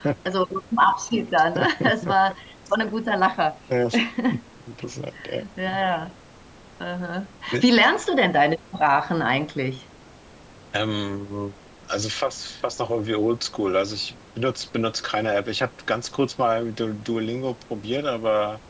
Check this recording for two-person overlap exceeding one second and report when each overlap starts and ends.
none

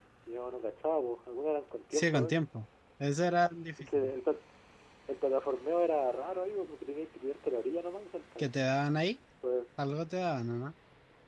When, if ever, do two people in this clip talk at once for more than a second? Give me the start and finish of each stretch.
none

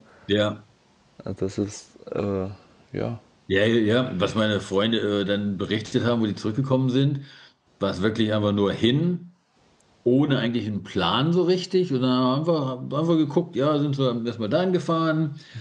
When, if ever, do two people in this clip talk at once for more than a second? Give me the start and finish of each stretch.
none

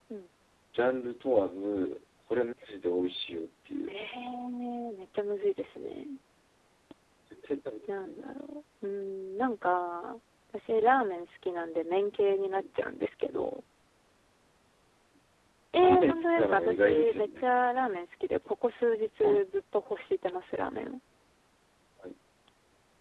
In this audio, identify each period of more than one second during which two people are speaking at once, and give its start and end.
15.8-17.5

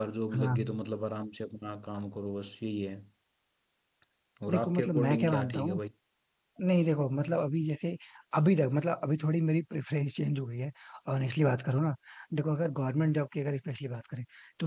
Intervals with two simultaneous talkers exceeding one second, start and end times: 4.5-5.8

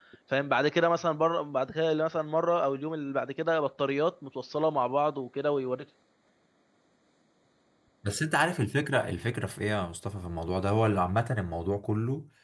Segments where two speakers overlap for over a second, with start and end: none

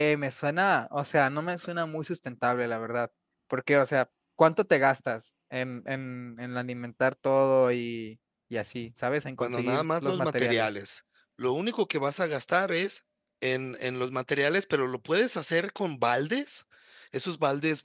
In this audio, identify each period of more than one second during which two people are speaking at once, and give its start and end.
9.4-10.7

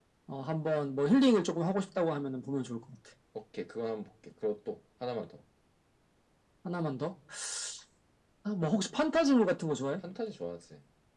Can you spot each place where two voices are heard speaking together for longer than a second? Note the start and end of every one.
none

